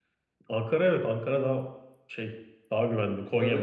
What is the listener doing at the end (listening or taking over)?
listening